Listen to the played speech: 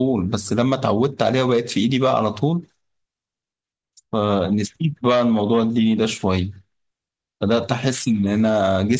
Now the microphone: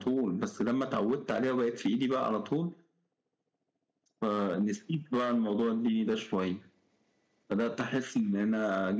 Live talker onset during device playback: none

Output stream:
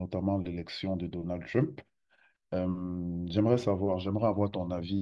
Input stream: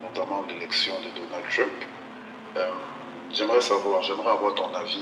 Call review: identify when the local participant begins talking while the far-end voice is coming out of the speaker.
none

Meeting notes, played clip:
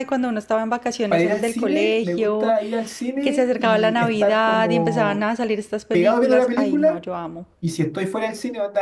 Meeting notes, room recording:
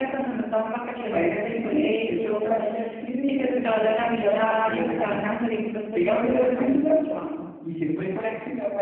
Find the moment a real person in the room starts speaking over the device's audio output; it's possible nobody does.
none

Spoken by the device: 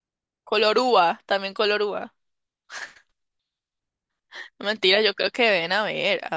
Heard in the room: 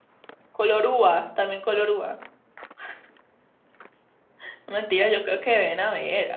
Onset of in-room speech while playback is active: none

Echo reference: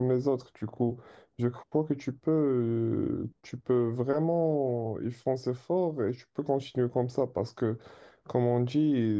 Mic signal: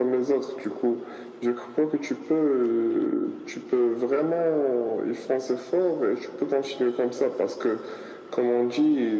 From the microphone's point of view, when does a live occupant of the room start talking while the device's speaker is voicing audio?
none

